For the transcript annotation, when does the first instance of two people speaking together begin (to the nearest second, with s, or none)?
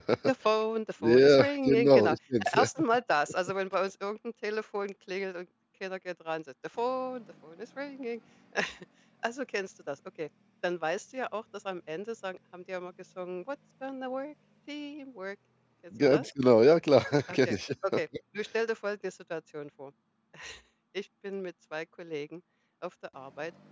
1 s